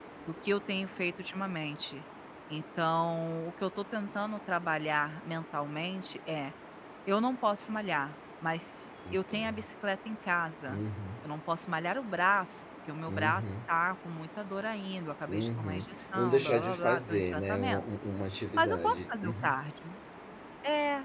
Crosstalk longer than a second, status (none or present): present